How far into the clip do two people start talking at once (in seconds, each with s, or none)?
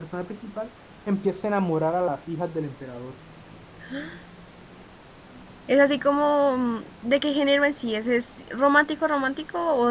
none